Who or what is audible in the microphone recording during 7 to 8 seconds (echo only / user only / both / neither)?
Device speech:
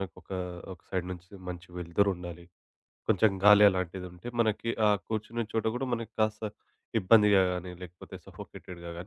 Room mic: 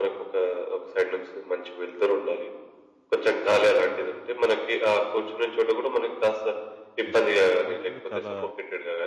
both